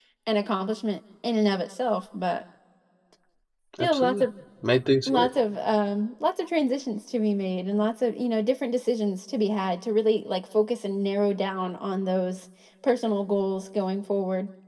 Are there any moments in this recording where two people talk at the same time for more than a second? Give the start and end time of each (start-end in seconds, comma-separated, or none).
none